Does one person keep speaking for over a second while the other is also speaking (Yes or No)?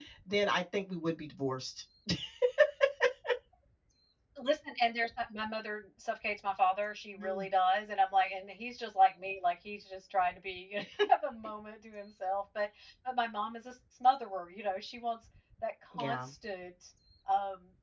No